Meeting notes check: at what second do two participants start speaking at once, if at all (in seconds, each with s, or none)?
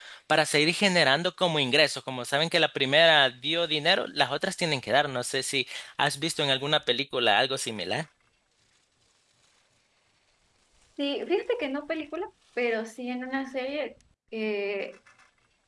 none